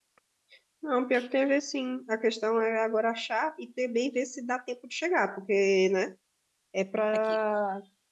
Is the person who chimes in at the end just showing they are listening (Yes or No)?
Yes